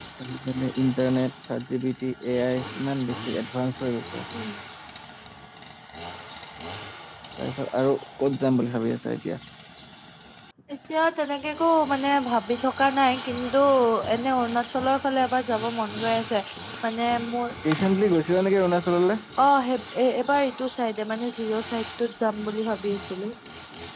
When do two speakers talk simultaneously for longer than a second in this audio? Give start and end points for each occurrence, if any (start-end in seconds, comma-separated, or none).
none